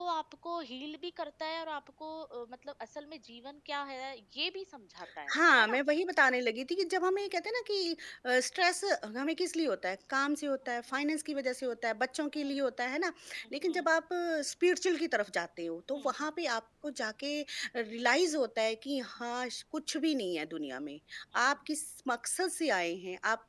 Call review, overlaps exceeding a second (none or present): none